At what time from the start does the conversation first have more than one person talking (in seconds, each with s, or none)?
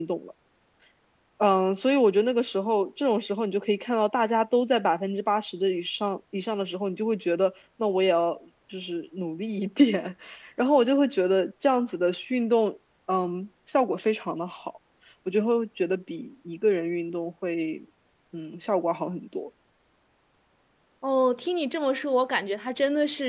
none